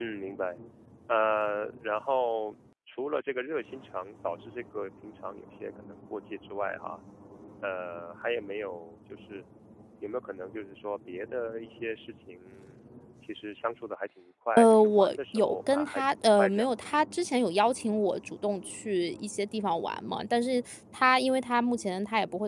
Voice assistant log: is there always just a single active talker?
No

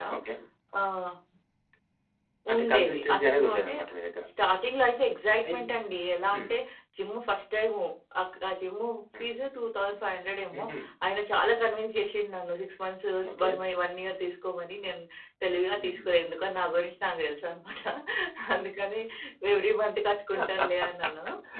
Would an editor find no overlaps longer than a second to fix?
No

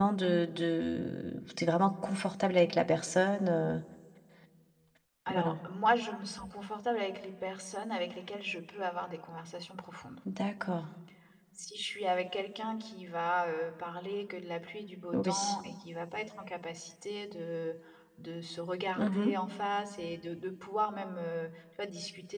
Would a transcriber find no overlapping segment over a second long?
Yes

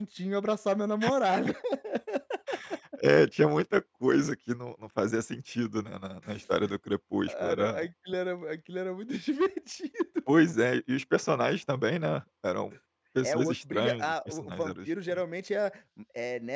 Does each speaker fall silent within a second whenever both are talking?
No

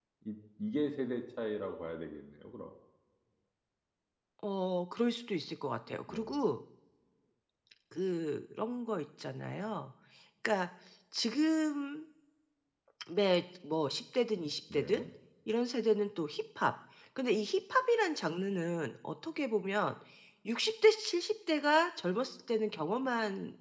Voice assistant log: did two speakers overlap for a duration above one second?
No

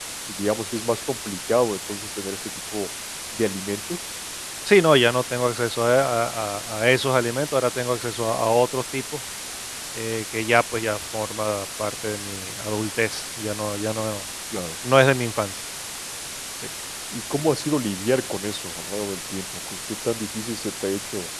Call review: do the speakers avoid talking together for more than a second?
Yes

